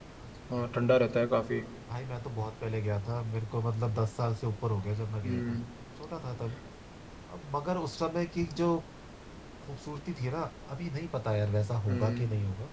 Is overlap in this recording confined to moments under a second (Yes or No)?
Yes